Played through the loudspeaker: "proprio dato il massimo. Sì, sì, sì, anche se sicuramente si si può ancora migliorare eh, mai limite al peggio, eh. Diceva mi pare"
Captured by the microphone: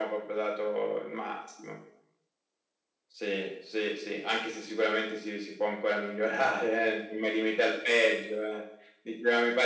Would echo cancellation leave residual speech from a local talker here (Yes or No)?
No